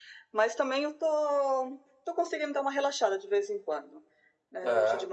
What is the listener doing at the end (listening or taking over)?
listening